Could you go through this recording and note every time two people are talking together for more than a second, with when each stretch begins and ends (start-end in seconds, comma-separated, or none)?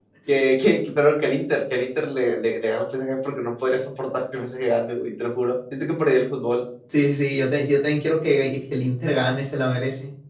none